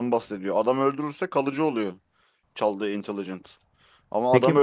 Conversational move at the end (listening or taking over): listening